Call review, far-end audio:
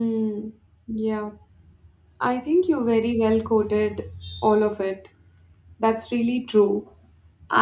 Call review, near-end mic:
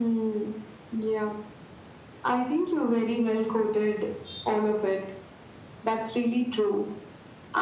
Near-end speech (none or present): none